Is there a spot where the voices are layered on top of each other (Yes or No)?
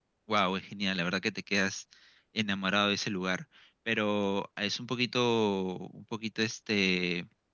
No